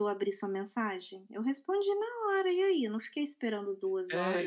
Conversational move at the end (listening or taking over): taking over